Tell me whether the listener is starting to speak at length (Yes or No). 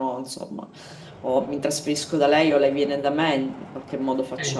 Yes